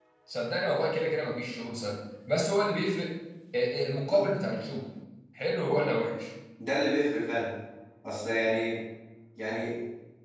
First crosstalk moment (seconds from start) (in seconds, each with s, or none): none